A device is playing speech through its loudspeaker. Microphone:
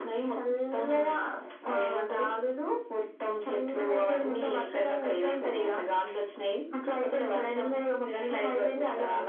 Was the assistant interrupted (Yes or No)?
No